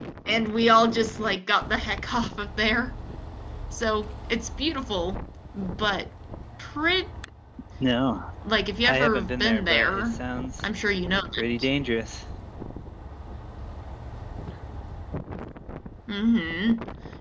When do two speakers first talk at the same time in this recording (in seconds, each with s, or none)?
8.8 s